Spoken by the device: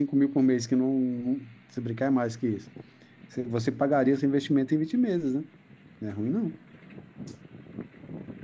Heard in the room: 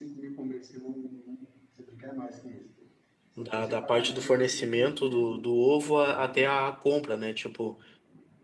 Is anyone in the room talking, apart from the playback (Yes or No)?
Yes